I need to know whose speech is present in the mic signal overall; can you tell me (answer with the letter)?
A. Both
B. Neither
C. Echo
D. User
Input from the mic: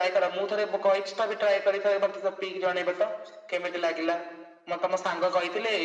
C